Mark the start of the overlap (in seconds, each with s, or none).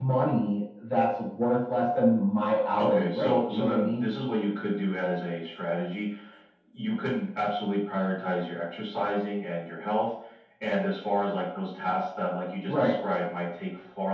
2.8 s